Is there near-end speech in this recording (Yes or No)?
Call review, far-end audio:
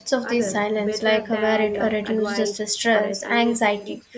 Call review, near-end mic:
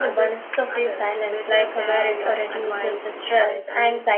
No